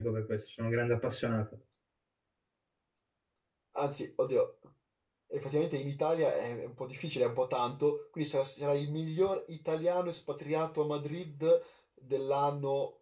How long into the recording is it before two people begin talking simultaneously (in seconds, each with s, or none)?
none